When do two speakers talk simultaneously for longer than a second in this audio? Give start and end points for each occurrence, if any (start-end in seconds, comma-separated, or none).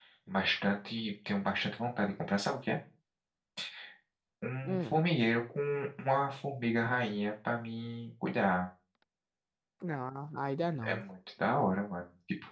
none